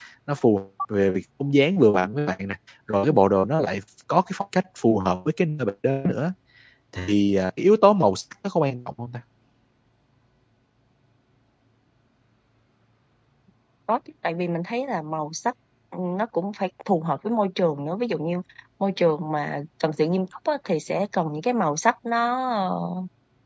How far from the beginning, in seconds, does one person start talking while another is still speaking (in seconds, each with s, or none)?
none